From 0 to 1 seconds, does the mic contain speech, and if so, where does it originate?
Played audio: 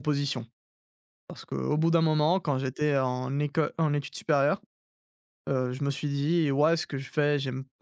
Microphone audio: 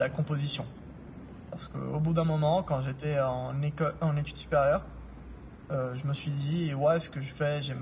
echo only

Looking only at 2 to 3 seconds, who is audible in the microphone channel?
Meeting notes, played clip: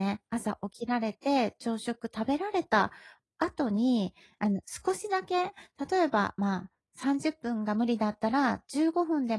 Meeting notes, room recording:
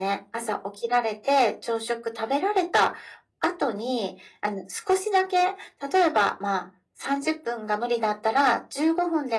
echo only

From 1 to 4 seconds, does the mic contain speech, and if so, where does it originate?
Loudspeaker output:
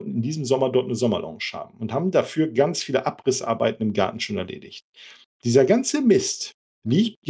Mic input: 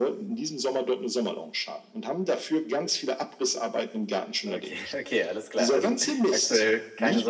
echo only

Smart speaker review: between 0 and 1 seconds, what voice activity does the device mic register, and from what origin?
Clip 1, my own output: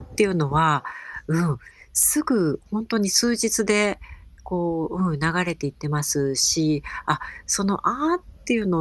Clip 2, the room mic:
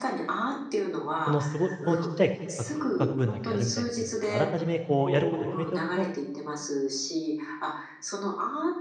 echo only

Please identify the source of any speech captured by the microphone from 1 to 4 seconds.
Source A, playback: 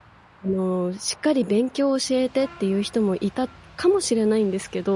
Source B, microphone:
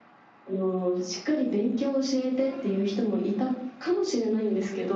echo only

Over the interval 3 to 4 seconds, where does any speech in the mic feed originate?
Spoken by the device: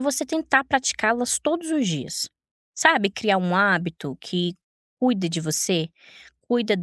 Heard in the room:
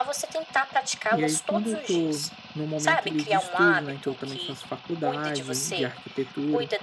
both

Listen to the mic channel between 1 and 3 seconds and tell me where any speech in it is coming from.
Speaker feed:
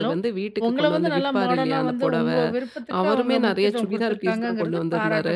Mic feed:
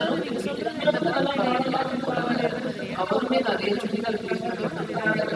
both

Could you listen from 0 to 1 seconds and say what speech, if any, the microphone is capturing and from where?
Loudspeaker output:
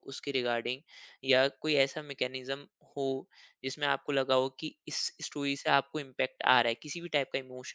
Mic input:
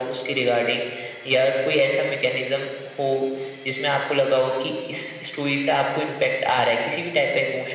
echo only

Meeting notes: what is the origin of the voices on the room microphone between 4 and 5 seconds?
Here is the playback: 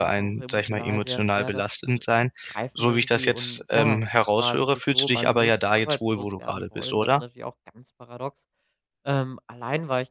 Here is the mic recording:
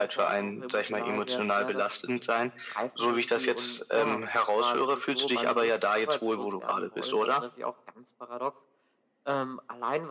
echo only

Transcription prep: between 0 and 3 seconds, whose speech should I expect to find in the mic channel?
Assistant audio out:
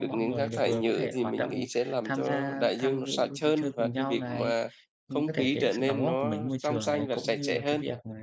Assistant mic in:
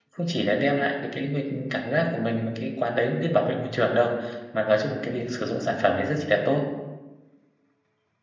user only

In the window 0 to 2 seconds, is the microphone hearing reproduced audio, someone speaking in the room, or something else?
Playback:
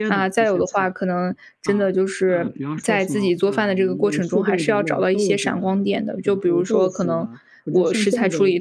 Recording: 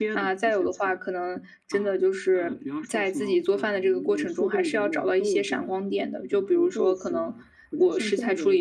echo only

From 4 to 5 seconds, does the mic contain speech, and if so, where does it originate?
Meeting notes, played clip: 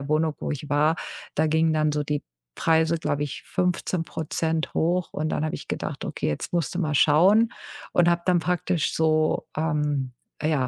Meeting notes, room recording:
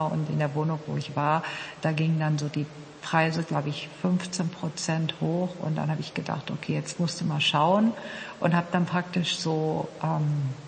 echo only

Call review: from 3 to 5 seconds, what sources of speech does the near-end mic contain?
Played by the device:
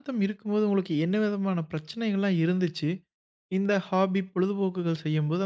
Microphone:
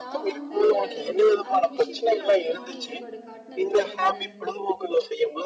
both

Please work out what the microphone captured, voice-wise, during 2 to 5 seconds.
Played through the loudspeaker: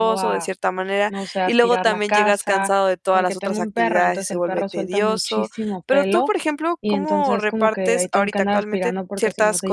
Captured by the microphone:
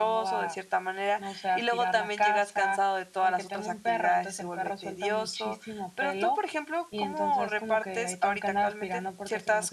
echo only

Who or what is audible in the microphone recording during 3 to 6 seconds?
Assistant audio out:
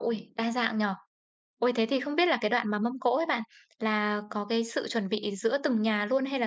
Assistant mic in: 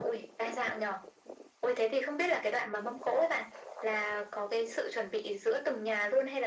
echo only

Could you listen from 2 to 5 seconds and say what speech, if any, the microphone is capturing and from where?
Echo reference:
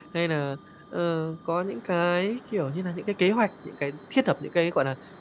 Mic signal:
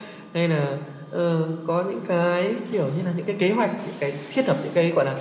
echo only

